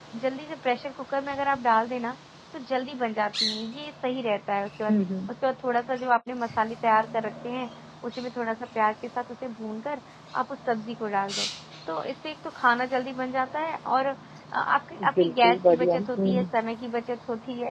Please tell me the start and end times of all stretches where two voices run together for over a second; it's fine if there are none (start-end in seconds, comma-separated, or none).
15.2-16.4